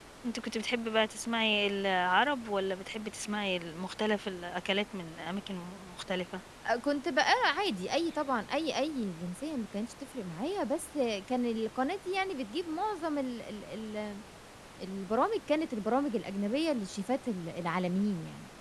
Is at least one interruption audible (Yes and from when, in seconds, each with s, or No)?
No